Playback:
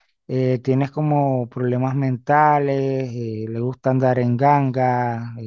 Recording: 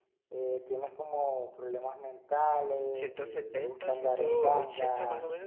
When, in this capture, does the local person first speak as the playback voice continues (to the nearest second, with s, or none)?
3 s